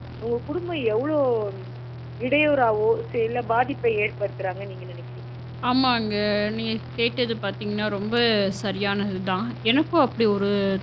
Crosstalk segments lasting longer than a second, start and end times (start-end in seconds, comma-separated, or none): none